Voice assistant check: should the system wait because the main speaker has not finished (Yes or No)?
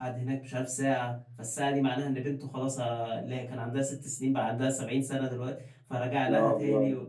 Yes